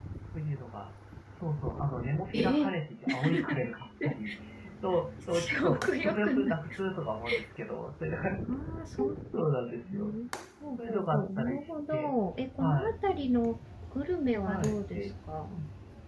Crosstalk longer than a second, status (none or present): present